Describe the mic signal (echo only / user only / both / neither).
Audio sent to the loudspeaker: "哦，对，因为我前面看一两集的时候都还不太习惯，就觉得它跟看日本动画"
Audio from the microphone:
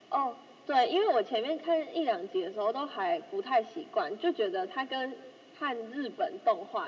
echo only